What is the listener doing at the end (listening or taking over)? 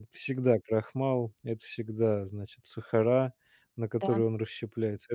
listening